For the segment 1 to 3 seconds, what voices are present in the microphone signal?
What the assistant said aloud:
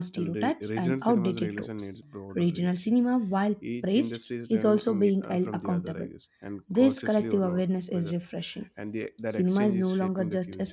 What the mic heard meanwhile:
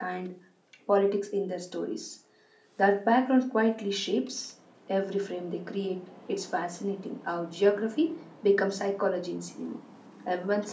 user only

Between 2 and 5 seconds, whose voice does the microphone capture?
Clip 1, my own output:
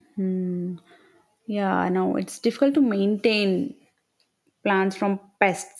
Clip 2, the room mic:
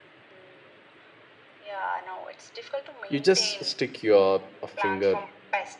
both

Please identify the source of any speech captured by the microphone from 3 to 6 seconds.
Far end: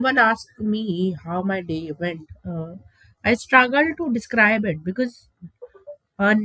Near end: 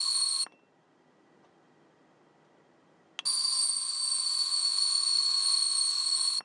neither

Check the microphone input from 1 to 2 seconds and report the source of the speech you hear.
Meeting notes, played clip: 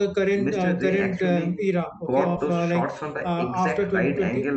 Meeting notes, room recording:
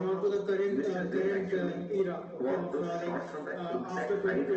echo only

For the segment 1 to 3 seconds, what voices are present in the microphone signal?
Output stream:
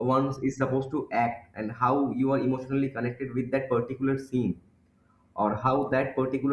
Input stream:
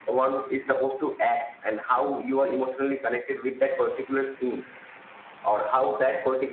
echo only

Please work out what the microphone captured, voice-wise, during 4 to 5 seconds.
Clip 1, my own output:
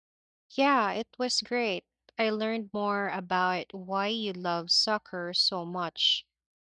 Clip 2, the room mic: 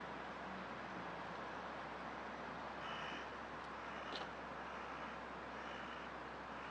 neither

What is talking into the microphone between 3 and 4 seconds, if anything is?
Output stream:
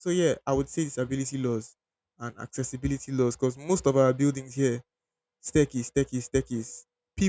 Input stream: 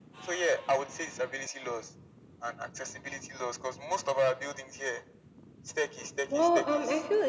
echo only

